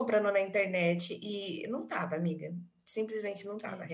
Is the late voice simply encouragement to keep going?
Yes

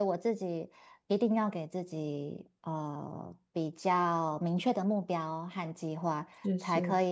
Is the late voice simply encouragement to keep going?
Yes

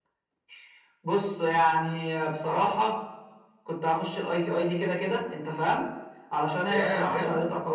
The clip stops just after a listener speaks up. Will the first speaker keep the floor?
Yes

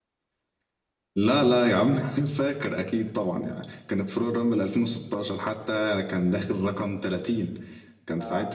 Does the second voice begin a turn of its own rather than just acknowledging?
No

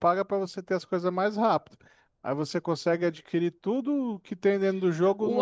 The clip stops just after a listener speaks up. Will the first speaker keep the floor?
No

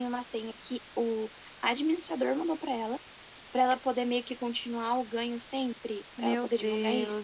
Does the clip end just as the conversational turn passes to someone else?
Yes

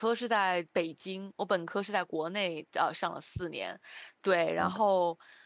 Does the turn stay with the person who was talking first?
Yes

